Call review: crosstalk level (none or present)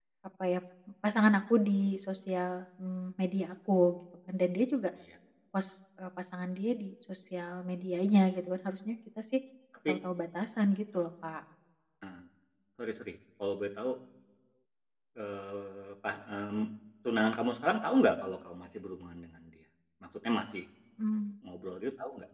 none